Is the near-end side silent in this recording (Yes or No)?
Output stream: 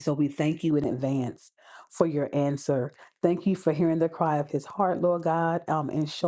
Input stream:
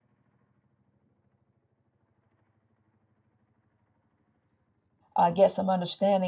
No